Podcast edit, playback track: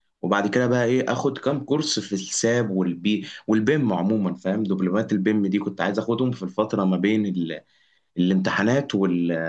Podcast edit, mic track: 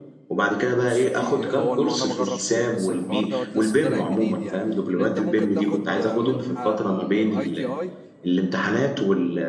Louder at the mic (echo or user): echo